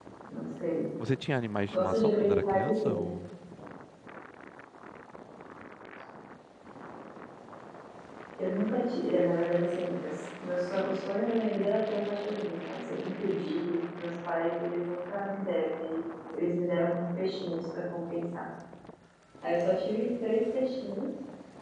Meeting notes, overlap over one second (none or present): present